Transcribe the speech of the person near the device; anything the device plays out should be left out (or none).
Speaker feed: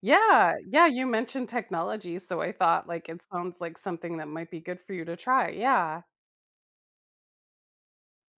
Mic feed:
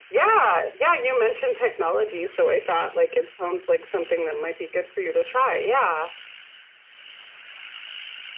none